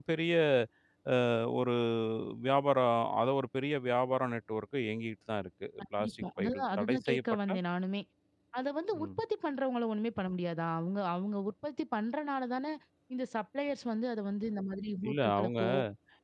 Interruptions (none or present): present